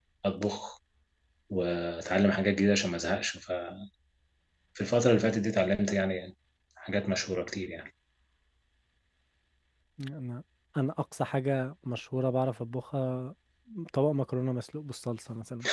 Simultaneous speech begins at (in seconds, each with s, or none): none